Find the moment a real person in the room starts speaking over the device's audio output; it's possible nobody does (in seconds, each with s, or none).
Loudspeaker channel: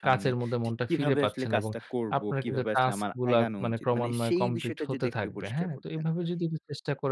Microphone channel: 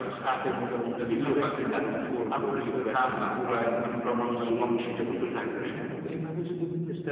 none